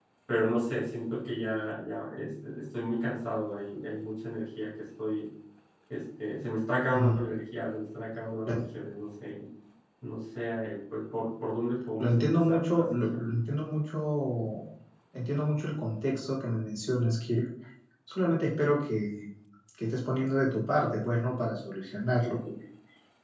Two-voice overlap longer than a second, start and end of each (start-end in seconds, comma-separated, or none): 12.0-13.2